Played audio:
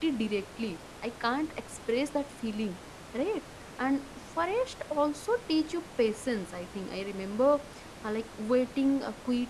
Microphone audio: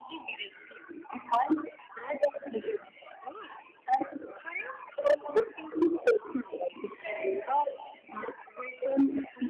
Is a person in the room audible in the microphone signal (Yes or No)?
Yes